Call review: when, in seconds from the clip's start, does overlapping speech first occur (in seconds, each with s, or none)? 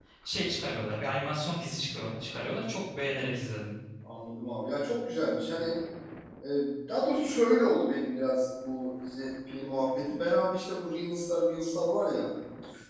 none